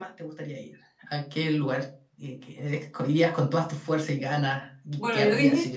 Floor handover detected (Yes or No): Yes